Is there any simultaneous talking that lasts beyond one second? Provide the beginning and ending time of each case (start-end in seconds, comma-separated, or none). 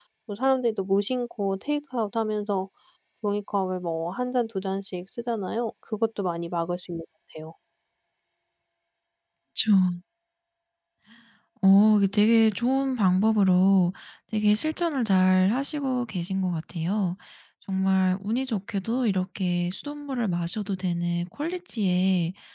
none